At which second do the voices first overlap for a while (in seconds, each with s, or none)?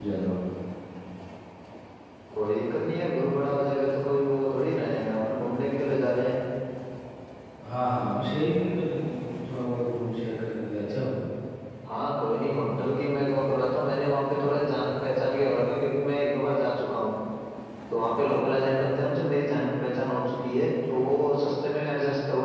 none